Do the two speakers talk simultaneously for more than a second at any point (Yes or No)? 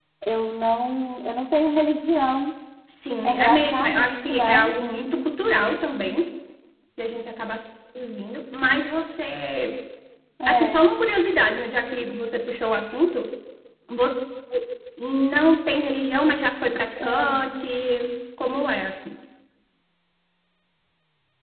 Yes